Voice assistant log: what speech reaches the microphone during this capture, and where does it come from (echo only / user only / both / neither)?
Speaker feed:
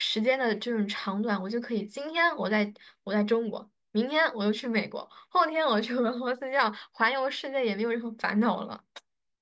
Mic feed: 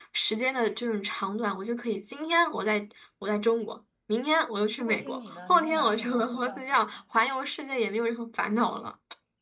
both